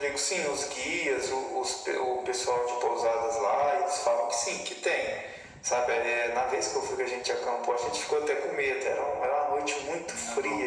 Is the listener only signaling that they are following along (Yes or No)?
Yes